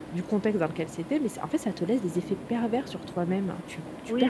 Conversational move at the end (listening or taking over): taking over